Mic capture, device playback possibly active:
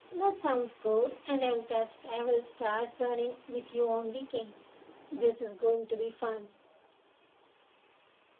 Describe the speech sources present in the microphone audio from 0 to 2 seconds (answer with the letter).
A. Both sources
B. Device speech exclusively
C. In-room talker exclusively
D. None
B